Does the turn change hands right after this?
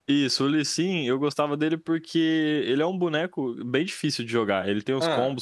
No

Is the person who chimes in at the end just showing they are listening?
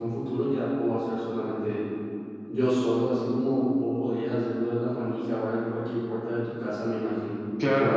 No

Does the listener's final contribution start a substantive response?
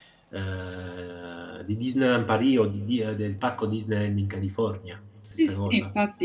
Yes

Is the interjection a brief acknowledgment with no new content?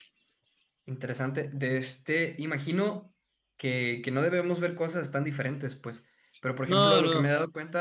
Yes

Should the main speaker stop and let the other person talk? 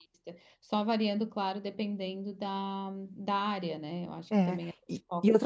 Yes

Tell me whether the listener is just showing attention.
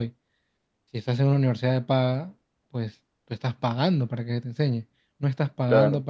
Yes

